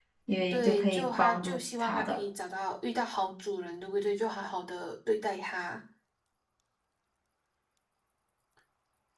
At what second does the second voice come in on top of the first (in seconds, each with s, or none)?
0.5 s